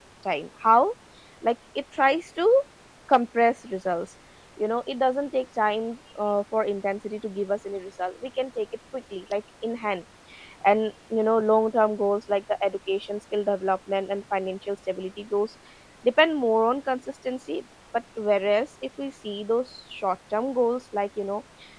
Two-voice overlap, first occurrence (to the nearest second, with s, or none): none